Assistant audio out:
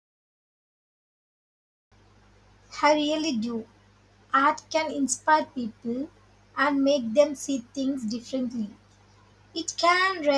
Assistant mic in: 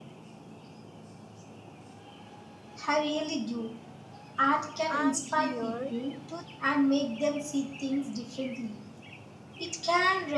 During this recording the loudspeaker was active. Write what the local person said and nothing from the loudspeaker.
I'm here to

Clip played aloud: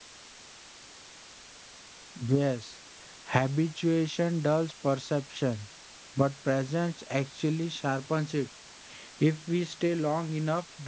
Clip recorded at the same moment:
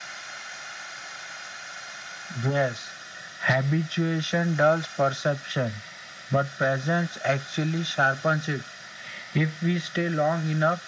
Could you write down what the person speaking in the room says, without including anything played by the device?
none

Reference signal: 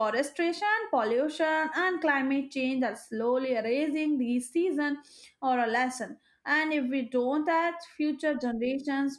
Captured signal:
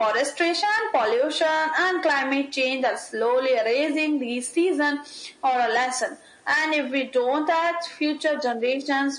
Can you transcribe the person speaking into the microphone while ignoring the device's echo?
none

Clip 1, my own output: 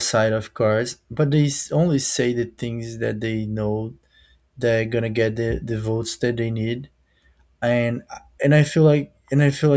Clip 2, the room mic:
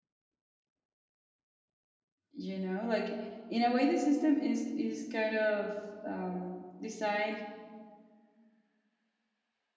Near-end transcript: You know, like in a way, the system is is kind of um, designed

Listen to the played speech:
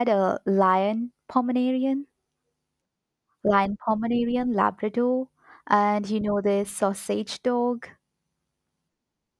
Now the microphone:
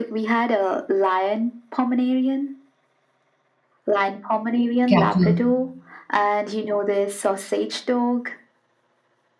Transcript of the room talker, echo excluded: cattle

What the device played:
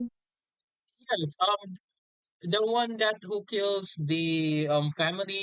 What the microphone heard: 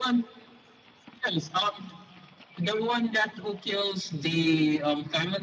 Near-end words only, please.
none

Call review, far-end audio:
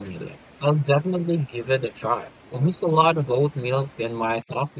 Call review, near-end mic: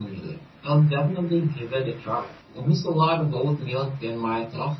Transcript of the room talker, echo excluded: none

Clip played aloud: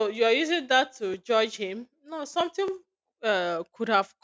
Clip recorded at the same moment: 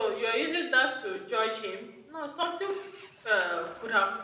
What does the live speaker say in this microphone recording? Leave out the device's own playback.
none

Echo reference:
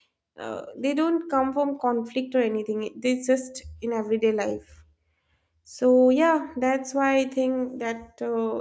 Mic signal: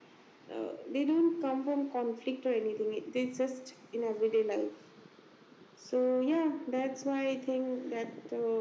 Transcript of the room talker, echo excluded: none

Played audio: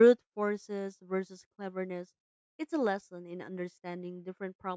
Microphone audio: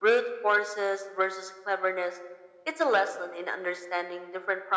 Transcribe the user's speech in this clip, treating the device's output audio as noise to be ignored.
none

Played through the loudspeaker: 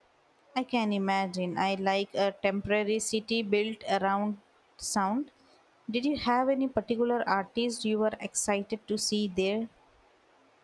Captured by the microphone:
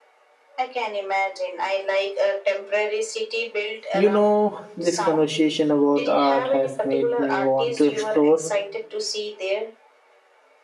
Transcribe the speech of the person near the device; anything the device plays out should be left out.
You know, this conversation about art has made me want to explore

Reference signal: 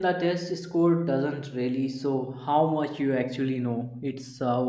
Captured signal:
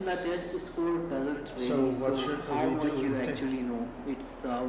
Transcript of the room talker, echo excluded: So, what should we do instead?

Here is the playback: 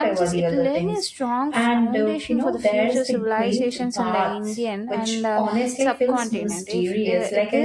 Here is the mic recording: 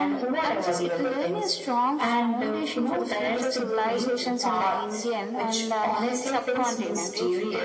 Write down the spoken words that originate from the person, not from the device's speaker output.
none

